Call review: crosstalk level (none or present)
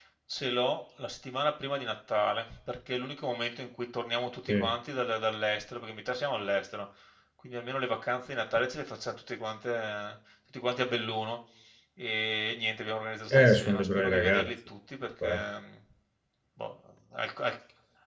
present